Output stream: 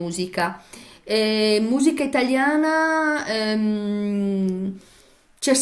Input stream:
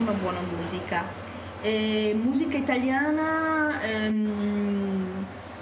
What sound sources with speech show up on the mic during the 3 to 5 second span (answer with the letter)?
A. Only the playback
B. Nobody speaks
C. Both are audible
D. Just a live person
A